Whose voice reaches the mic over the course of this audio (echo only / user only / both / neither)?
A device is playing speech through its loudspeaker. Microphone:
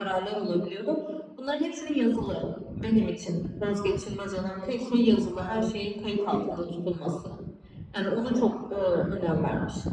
echo only